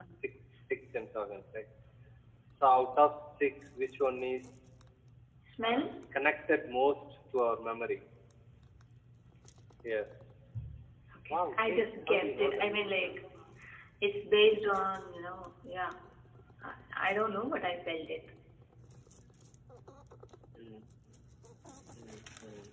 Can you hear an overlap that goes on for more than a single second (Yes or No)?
Yes